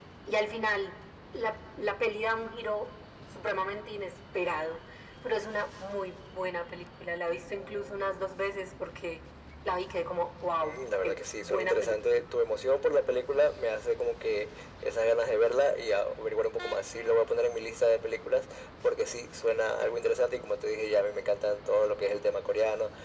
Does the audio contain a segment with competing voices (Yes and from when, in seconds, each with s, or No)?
Yes, from 10.6 s